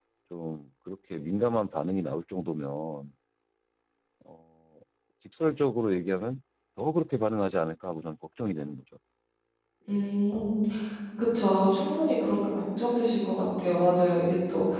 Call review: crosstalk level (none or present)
none